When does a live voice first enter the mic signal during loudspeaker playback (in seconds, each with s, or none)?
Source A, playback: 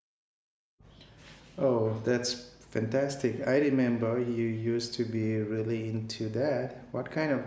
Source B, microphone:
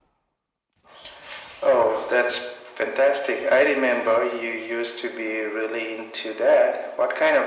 none